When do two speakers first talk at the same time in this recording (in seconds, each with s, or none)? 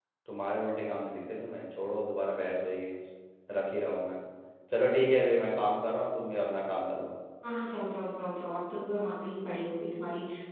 none